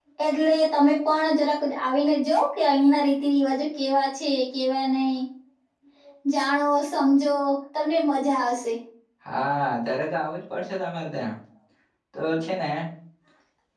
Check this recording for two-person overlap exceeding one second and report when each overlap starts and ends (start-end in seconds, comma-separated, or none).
none